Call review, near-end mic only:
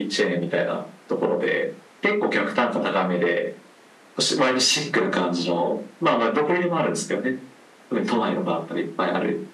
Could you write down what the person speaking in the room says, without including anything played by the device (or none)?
none